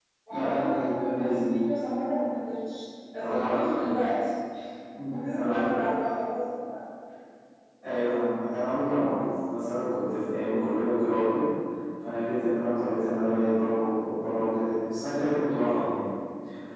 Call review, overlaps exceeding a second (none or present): present